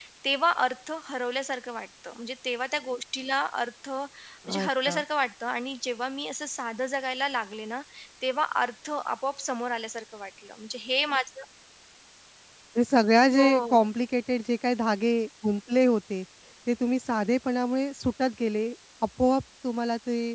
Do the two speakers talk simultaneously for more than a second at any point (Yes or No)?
No